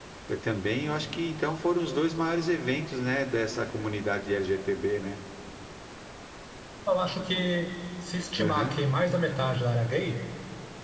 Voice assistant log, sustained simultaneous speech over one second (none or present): none